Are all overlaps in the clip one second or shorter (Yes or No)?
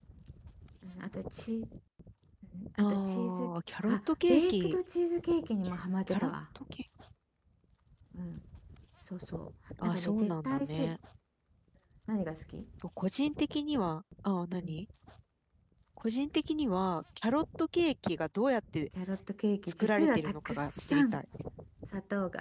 No